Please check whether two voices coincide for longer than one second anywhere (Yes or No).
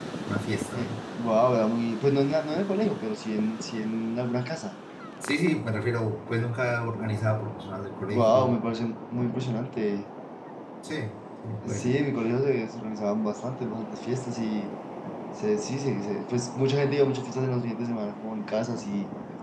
No